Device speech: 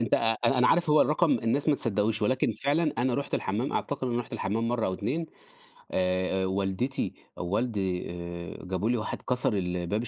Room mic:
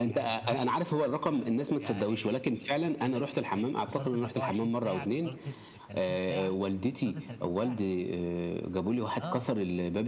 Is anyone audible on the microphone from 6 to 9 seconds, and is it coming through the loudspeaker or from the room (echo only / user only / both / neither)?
both